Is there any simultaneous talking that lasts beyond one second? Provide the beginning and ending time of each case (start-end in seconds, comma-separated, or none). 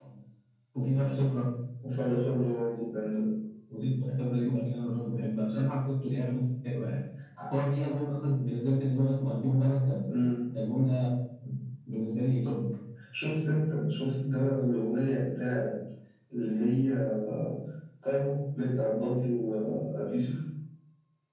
none